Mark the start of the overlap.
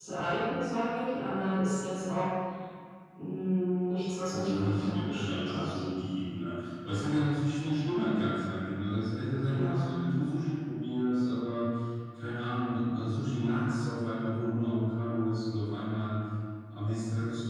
4.3 s

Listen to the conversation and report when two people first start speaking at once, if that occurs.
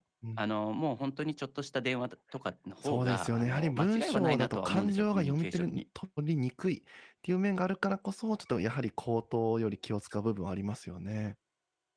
2.8 s

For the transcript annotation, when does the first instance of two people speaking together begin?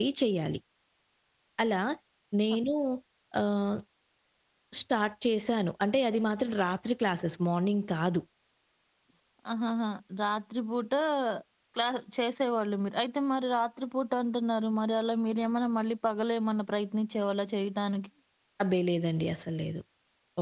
none

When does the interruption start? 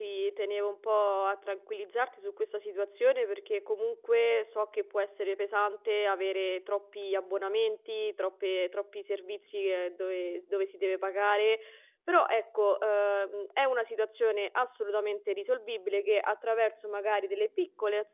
none

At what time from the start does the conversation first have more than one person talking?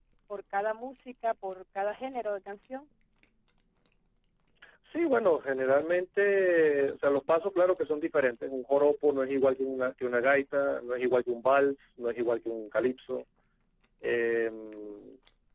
none

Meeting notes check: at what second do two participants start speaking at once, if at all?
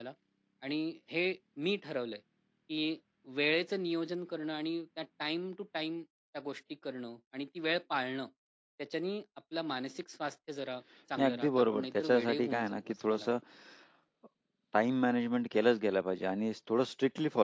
11.2 s

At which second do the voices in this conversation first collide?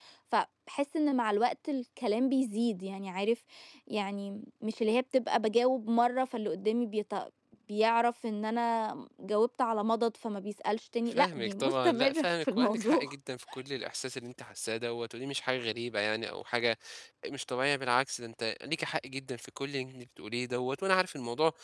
11.1 s

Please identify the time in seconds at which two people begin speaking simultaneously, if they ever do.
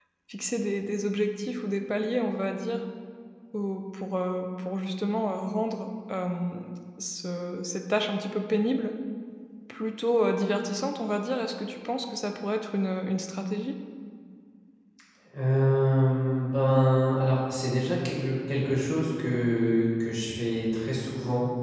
none

